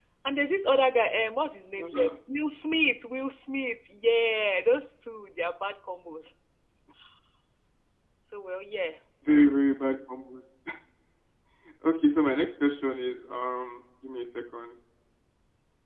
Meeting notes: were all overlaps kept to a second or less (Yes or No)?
Yes